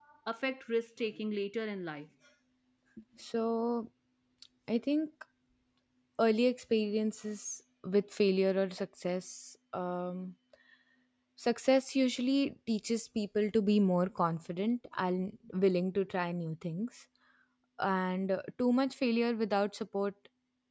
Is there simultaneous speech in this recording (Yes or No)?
No